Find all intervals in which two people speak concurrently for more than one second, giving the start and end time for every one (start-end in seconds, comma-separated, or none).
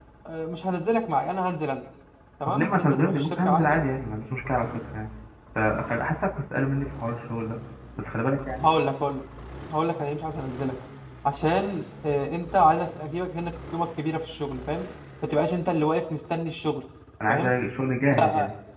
2.5-3.8